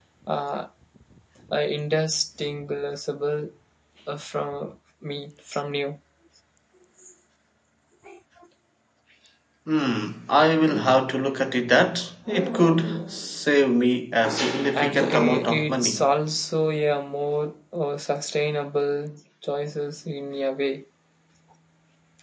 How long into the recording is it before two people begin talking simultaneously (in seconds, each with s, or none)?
14.7 s